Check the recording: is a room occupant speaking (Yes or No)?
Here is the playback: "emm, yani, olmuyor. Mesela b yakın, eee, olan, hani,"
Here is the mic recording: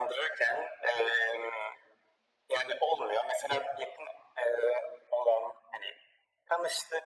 No